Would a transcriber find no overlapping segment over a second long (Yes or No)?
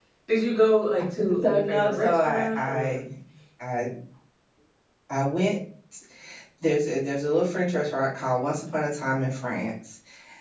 No